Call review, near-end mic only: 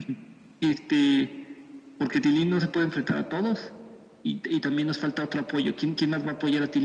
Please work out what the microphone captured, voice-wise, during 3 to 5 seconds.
echo only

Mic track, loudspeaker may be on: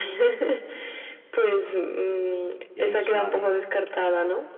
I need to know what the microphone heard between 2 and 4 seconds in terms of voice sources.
both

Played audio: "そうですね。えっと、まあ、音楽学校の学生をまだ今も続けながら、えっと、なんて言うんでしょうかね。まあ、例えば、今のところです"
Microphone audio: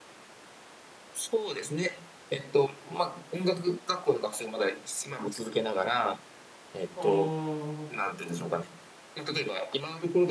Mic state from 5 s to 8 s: both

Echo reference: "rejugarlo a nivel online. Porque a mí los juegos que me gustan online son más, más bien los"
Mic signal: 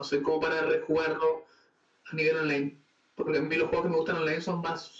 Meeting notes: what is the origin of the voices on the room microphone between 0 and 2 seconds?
echo only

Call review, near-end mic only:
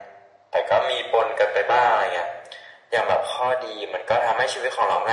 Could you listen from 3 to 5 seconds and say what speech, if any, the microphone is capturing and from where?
echo only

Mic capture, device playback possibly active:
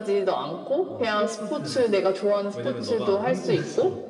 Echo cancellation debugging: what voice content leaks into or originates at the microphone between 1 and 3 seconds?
both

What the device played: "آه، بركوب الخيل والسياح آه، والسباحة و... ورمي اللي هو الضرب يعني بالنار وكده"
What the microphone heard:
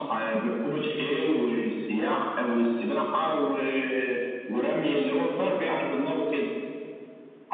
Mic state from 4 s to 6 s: echo only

